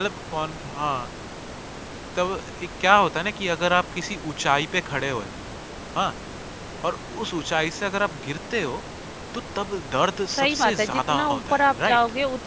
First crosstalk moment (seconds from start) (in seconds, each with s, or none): 10.3 s